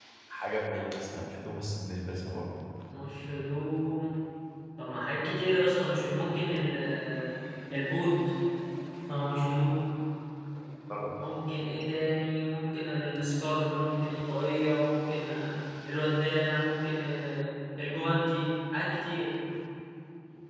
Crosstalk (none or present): none